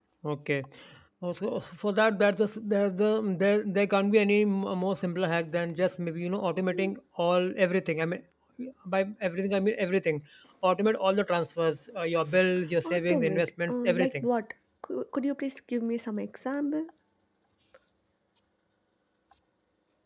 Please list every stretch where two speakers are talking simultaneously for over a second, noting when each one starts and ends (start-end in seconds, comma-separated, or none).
12.8-14.3